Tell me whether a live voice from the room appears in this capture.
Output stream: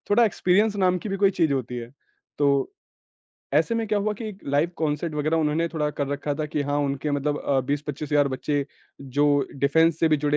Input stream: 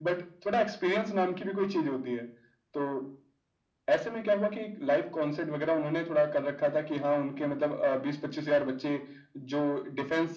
No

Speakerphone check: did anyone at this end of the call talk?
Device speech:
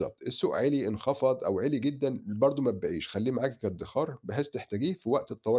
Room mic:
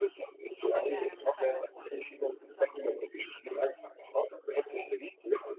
Yes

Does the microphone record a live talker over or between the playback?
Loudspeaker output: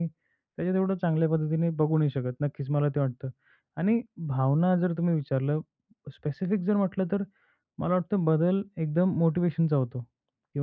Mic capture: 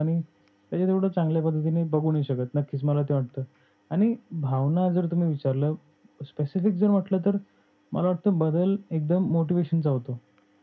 No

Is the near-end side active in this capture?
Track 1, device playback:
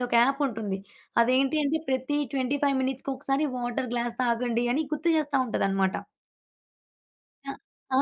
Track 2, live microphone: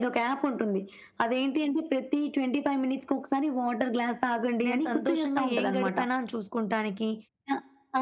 Yes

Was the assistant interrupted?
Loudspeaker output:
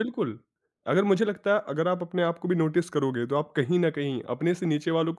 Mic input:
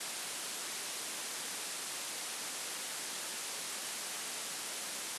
No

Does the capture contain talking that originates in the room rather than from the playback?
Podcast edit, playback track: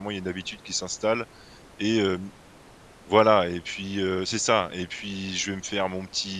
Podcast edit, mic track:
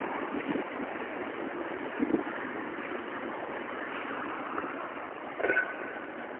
No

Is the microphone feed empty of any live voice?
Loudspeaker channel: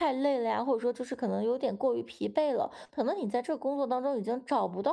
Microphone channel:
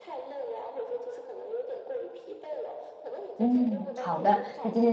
No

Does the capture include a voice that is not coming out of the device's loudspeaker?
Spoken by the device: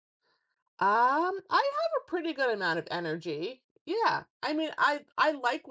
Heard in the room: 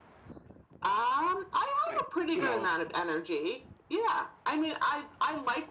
Yes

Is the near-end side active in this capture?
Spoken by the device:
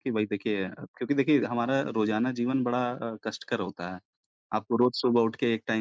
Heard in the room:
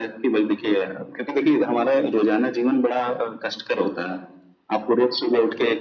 No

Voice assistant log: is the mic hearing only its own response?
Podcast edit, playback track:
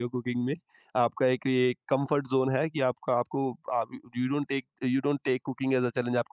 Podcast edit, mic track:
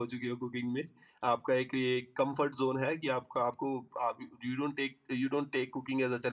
Yes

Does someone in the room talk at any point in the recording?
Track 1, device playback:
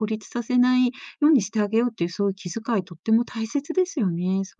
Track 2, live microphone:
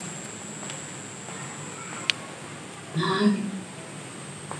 Yes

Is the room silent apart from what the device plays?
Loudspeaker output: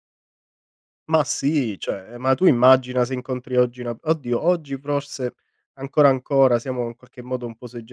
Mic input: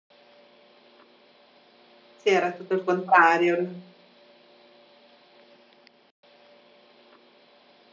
No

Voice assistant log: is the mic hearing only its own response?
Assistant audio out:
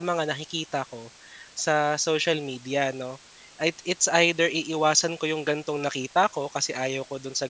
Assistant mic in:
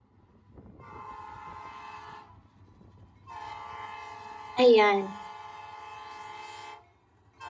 No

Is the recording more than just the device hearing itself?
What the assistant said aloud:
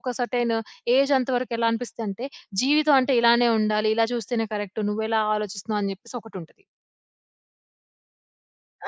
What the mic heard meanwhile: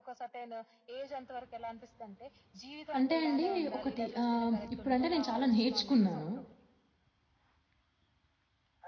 Yes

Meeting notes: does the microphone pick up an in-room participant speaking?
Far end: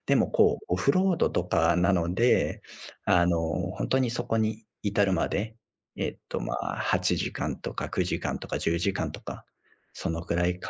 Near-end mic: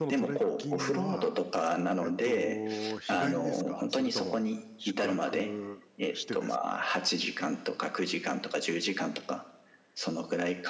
Yes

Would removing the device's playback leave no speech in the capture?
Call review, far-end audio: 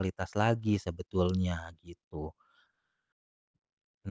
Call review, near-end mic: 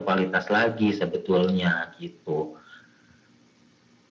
Yes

